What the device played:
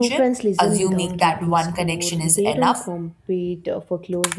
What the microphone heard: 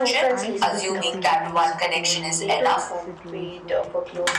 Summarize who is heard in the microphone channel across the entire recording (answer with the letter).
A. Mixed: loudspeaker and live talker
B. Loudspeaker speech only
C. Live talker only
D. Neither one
A